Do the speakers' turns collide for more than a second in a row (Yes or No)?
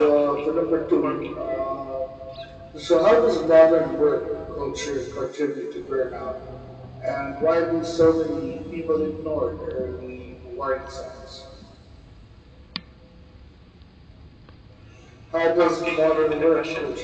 Yes